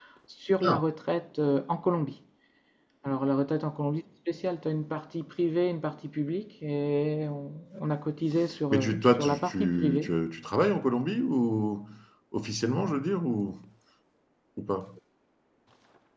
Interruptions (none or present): present